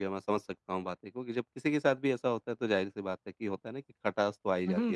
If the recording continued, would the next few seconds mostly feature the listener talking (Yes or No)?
Yes